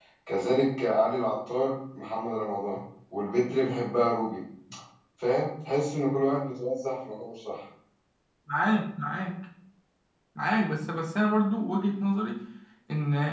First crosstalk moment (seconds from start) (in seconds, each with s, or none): none